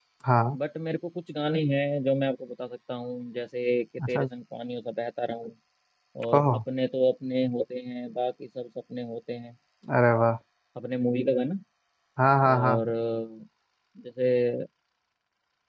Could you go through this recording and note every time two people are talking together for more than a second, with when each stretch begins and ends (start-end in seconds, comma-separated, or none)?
none